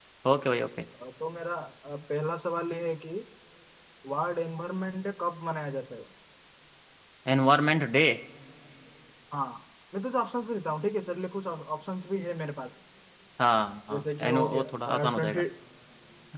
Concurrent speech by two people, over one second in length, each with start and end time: 13.9-15.4

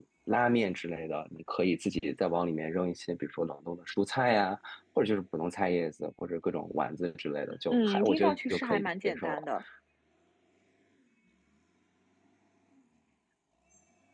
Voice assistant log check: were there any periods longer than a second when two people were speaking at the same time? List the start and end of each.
7.7-9.4

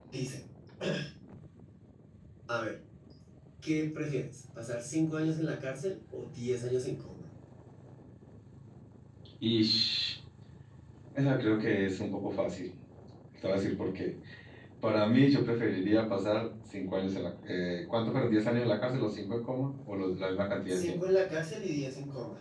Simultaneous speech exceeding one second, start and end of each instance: none

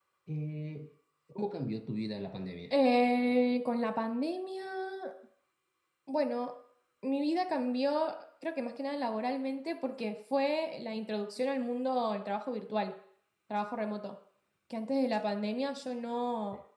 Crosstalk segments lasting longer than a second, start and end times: none

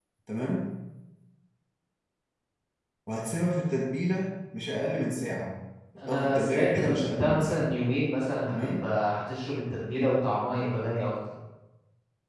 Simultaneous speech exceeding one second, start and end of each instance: 6.1-7.7

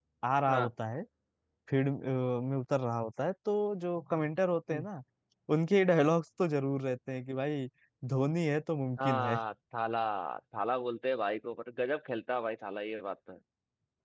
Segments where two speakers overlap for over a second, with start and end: none

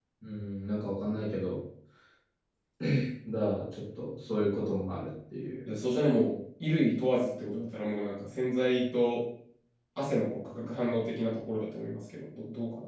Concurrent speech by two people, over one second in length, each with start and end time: none

